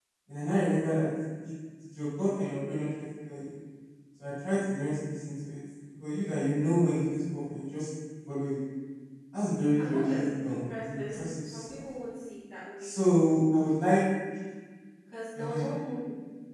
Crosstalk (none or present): present